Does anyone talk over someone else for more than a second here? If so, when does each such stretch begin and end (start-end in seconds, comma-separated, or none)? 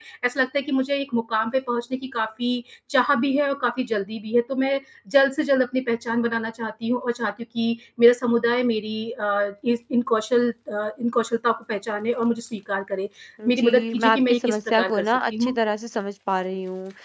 13.5-15.6